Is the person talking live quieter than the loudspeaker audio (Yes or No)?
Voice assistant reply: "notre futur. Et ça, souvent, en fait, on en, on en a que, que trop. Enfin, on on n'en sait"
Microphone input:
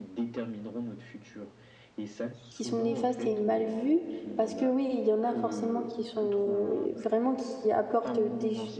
No